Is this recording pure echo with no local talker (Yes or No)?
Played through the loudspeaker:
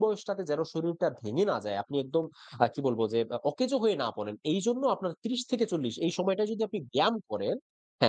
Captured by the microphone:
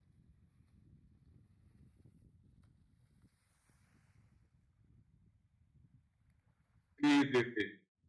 No